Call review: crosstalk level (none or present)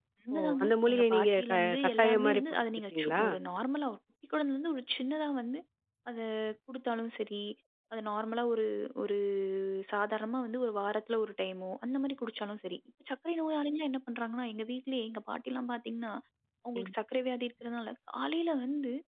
present